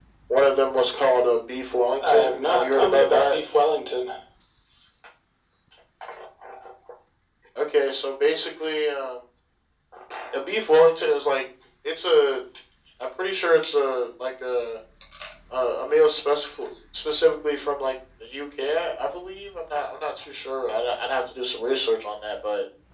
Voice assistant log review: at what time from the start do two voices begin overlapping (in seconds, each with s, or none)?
2.0 s